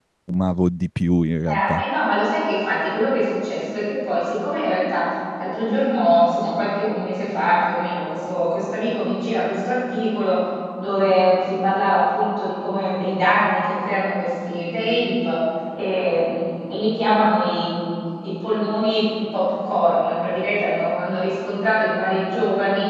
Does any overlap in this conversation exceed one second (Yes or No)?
No